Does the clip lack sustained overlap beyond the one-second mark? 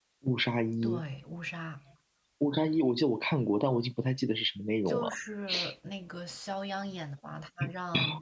Yes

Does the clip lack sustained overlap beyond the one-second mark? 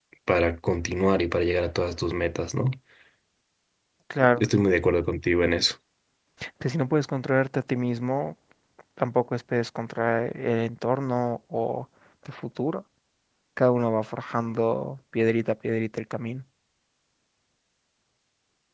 Yes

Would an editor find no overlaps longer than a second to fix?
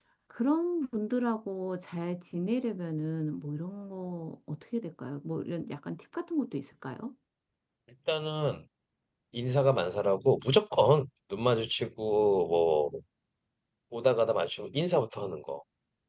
Yes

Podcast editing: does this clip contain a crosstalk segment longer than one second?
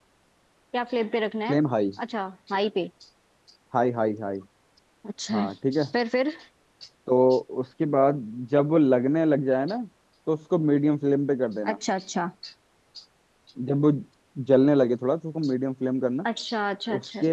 No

